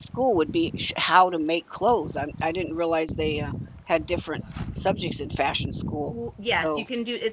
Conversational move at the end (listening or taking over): taking over